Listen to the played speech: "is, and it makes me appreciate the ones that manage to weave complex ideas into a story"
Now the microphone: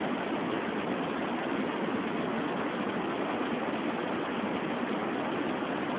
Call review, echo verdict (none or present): none